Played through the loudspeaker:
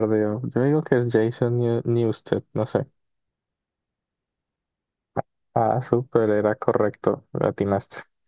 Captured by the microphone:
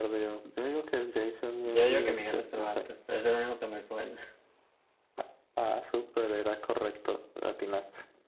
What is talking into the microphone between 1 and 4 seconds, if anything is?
both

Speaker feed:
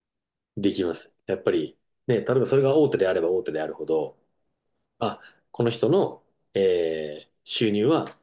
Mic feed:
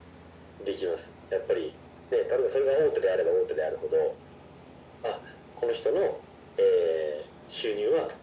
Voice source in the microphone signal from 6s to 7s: echo only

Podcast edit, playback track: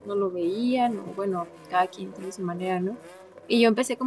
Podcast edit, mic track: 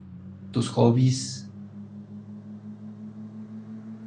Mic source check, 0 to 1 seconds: user only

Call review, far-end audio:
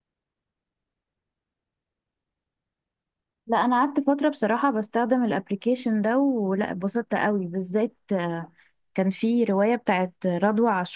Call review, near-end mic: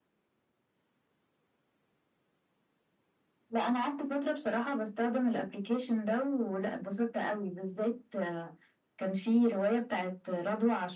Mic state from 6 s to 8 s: echo only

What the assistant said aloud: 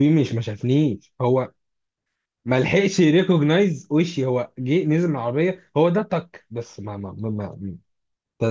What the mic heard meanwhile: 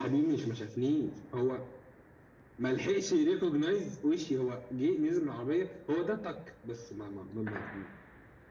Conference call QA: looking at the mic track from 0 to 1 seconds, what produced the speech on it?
echo only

